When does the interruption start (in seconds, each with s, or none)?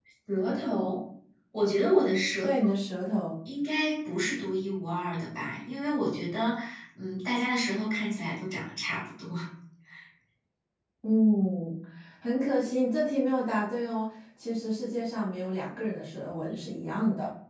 none